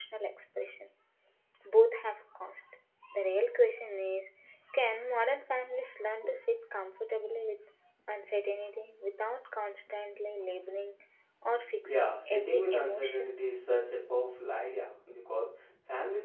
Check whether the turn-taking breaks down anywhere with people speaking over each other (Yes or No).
Yes